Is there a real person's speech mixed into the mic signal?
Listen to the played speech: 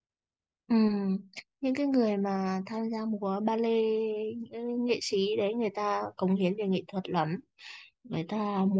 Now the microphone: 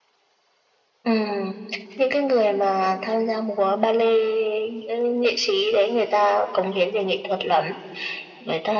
No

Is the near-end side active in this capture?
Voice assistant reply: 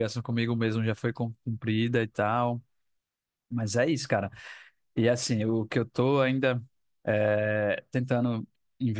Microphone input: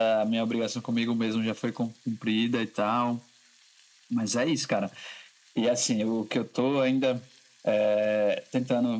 No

